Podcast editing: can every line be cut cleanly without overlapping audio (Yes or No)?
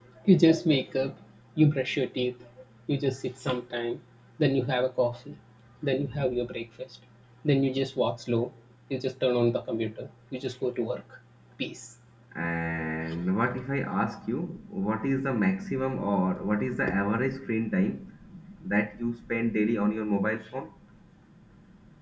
Yes